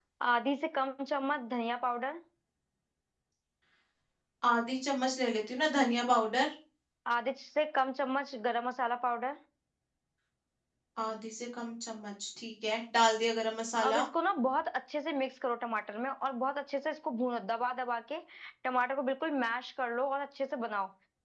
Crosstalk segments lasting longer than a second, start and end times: none

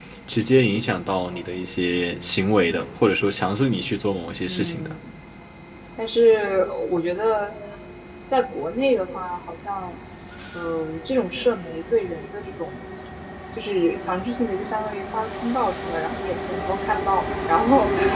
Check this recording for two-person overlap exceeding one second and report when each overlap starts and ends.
none

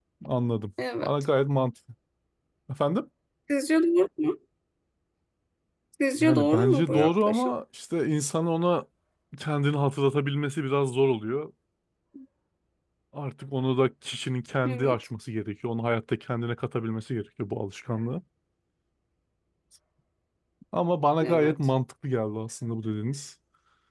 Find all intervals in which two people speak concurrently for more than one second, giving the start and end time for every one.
6.2-7.5

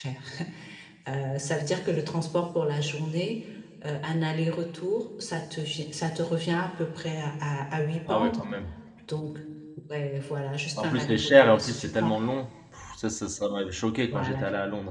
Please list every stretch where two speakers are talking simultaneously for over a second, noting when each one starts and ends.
10.8-12.3

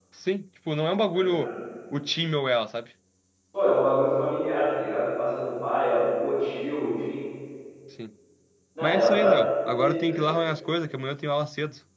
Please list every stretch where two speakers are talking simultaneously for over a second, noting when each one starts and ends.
8.8-10.3

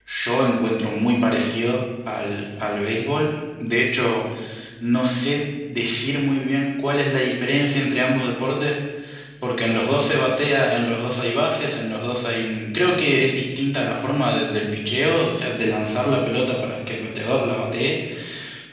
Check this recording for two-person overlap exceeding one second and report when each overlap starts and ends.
none

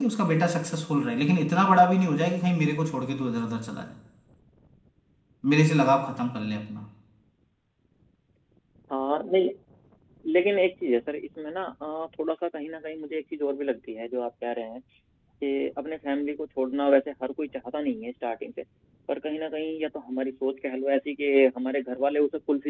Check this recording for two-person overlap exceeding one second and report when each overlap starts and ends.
none

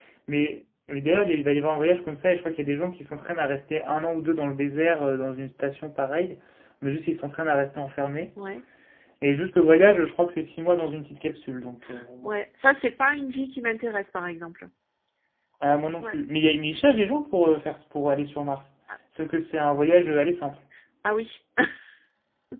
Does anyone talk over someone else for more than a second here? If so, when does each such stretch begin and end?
none

